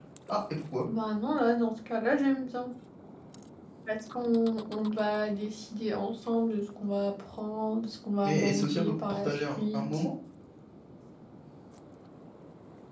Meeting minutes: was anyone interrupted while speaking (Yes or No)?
Yes